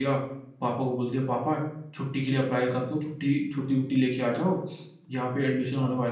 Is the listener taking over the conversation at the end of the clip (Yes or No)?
No